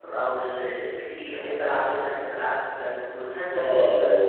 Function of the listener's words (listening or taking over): taking over